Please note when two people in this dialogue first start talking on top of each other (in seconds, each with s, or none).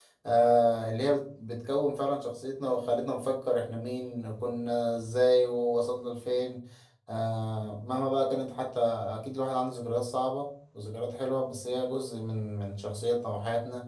none